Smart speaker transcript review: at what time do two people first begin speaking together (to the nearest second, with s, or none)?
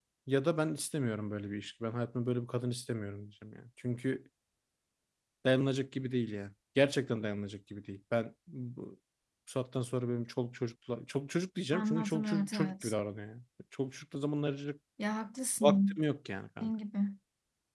12 s